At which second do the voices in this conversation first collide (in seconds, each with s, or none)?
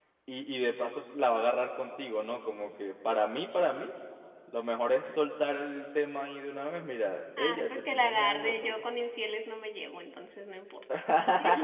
7.4 s